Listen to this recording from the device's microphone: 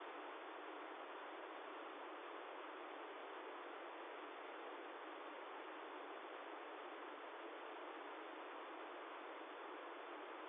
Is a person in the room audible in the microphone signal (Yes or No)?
No